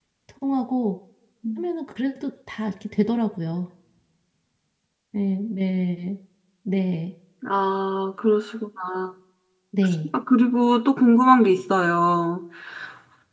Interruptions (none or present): none